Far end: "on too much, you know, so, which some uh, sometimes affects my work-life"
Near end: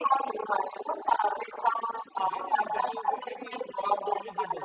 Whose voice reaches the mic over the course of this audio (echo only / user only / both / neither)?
both